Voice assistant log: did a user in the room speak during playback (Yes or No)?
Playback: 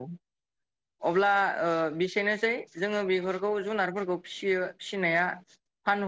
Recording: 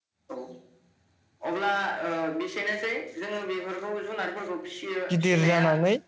Yes